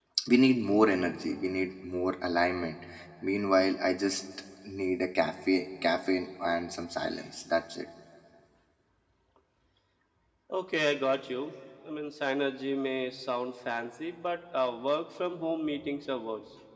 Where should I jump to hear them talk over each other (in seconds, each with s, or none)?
none